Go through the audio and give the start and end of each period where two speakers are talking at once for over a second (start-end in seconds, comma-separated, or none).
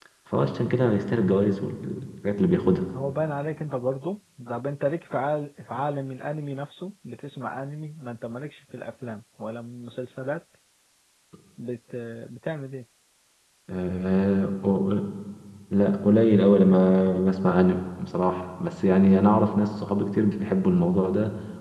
none